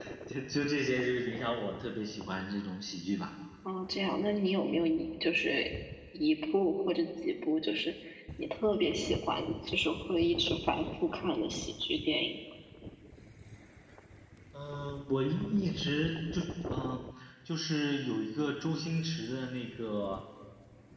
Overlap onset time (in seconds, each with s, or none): none